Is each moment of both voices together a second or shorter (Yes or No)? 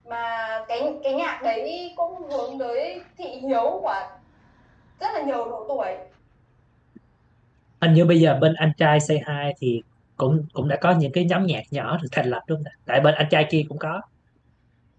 Yes